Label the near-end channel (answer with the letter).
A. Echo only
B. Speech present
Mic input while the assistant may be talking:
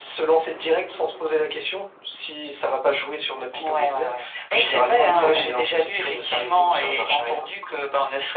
B